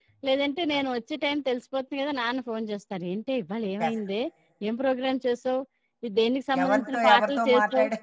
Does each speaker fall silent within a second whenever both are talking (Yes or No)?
No